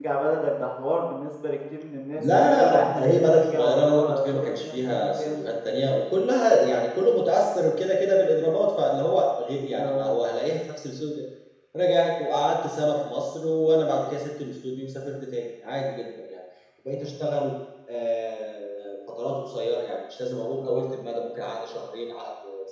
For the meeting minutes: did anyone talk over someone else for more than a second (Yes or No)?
Yes